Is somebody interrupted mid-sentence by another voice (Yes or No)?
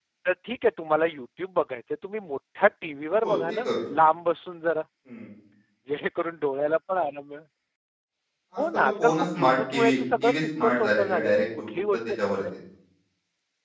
Yes